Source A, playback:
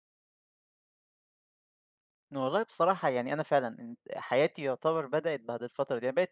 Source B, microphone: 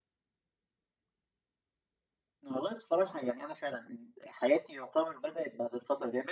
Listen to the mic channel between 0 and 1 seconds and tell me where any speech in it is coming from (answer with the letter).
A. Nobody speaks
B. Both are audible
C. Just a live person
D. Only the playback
A